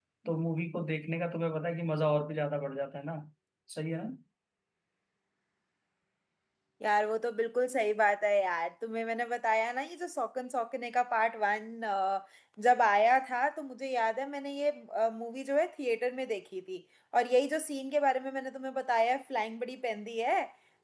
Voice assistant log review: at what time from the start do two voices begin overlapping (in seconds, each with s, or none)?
none